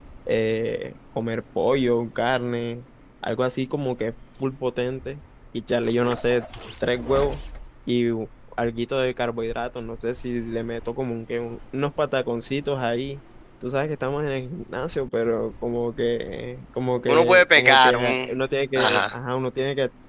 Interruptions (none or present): present